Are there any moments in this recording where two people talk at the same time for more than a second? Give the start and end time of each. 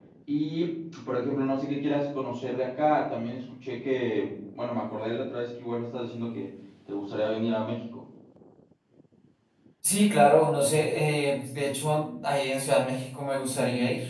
none

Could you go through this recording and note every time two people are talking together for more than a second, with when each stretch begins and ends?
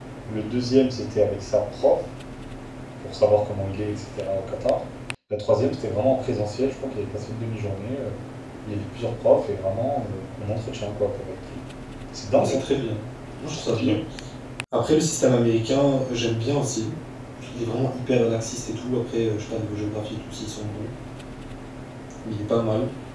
none

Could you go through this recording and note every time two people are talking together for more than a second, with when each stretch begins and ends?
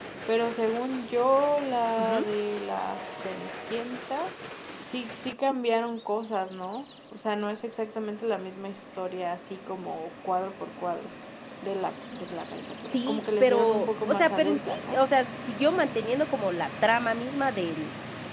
12.9-15.0

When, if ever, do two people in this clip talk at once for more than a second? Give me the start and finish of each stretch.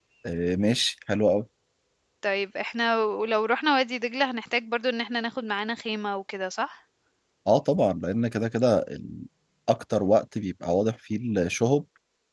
none

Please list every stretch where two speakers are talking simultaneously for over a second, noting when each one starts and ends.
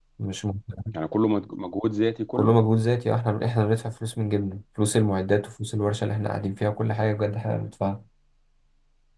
none

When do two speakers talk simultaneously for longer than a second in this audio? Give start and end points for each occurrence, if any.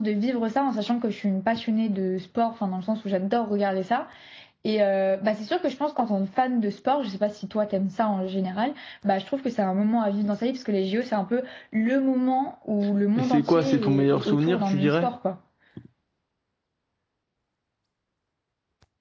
13.2-15.1

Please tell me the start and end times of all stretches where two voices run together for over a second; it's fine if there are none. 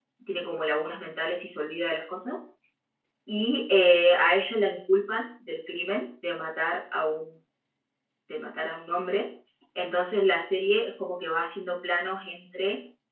none

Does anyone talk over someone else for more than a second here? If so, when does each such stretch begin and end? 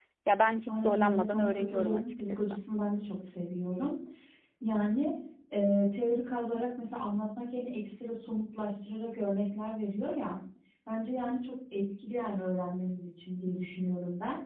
0.7-2.6

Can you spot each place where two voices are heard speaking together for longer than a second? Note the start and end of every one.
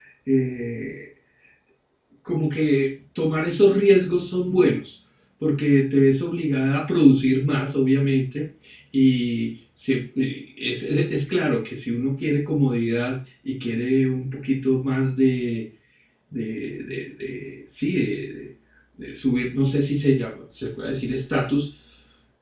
none

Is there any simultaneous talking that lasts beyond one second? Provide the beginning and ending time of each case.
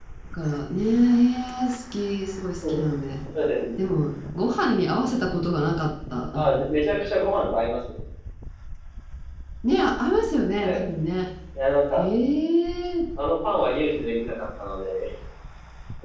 none

